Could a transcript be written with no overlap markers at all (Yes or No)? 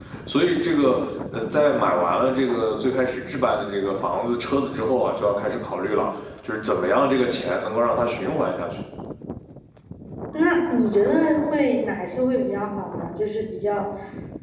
Yes